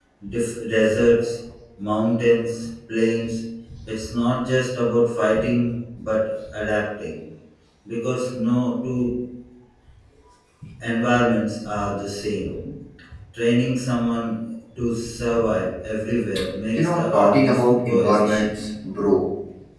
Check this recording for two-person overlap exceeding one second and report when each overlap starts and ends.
16.7-18.6

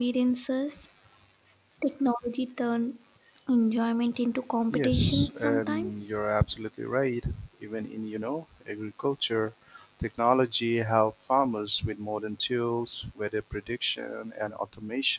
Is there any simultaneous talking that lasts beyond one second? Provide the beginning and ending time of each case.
4.7-6.1

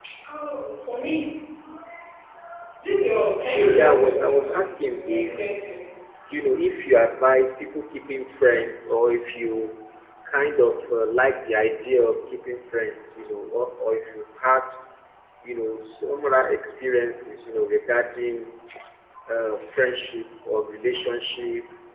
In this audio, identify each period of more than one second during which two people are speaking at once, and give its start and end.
3.7-5.3

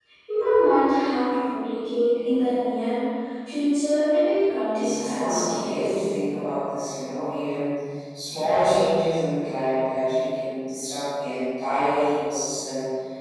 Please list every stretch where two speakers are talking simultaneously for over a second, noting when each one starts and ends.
4.7-6.0

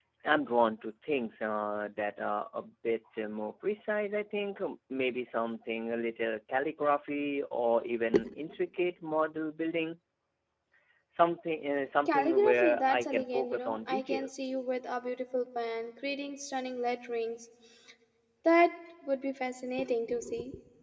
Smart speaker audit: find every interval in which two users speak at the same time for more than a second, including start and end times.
12.1-14.3

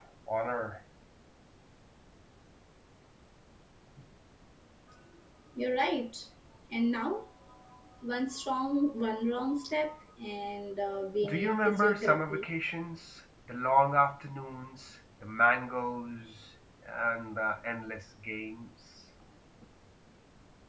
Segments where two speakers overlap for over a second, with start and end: 11.2-12.4

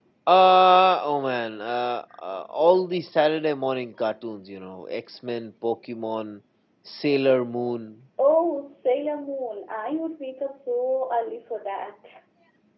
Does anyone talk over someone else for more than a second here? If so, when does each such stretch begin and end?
none

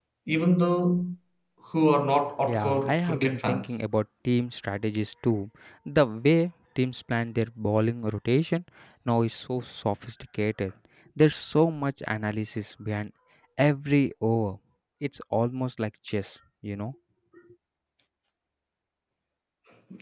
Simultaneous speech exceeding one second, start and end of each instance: 2.4-3.8

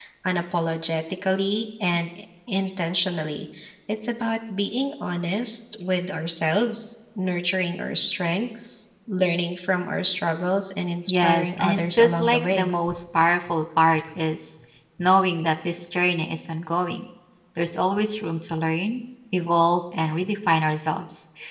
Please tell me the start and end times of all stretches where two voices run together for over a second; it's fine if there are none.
11.1-12.7

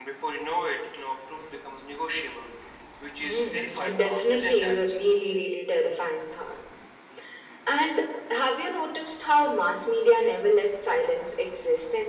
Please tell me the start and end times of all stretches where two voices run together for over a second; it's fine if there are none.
3.2-4.8

